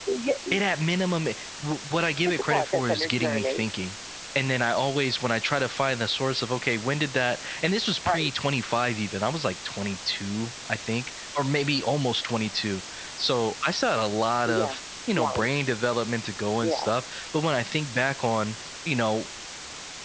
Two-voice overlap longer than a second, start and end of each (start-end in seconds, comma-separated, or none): 2.2-3.6